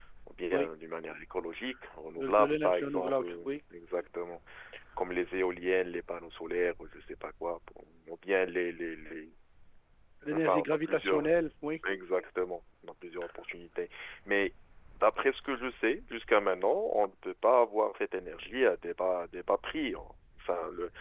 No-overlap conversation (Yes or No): No